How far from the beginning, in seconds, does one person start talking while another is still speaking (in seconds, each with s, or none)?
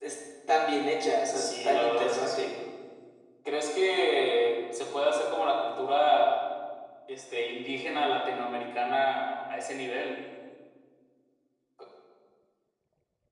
1.3 s